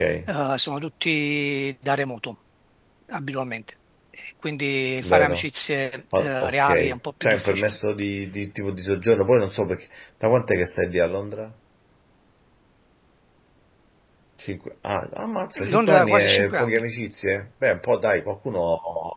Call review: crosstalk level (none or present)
present